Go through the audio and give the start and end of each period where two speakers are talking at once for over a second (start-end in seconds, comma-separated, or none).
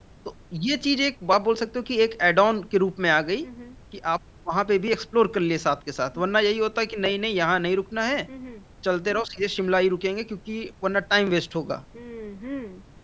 none